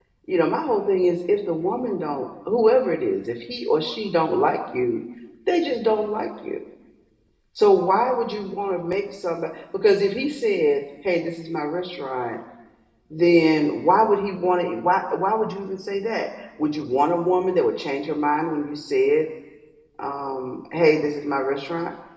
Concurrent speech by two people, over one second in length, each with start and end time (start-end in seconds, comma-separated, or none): none